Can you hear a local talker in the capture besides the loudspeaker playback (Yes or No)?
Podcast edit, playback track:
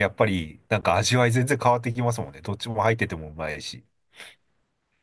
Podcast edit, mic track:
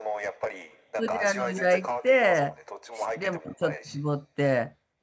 Yes